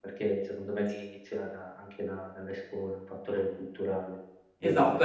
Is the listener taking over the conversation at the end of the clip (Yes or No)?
Yes